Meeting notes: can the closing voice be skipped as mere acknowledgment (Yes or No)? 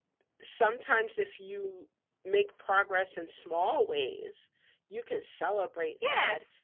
No